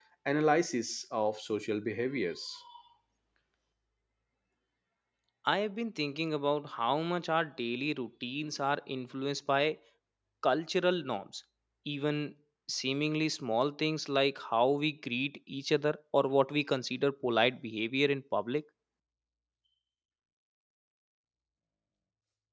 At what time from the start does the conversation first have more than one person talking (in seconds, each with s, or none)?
none